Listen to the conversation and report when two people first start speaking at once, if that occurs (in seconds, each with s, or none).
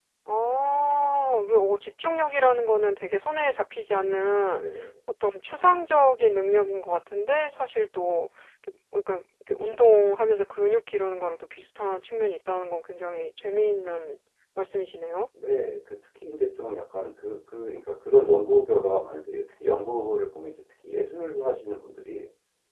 none